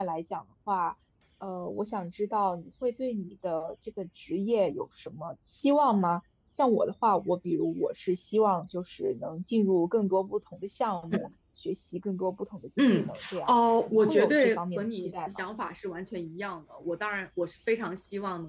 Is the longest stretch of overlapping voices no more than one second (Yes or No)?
No